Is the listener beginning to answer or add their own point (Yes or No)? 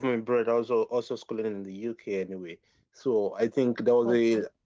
No